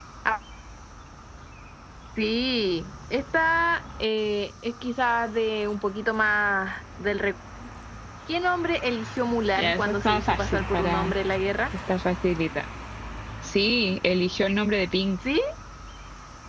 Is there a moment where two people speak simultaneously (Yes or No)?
Yes